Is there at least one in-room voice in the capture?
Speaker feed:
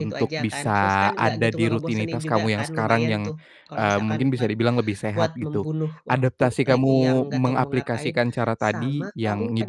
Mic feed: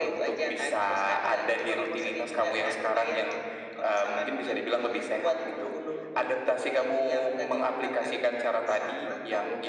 No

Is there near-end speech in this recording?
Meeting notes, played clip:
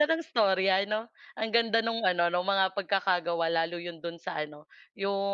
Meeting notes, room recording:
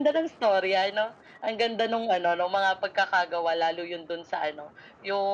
No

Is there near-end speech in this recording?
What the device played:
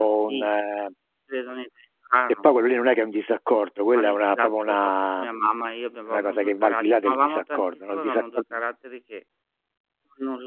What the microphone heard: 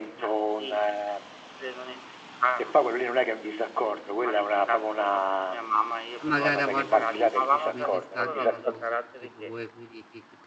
Yes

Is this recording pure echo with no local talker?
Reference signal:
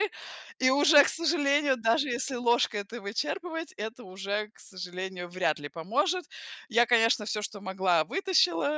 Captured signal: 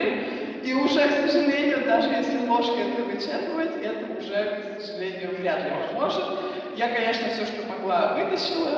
No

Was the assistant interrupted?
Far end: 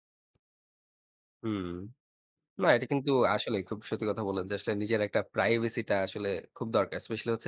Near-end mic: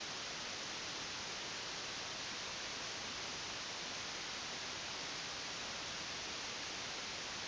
No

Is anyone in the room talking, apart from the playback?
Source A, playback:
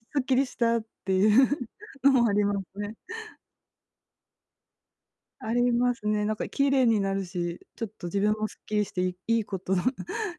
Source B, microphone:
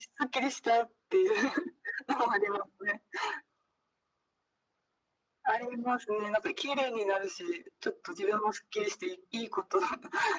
No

